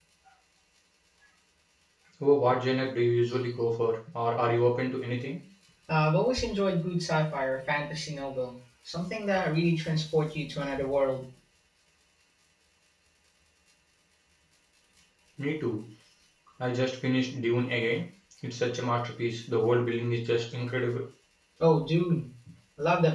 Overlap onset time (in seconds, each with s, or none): none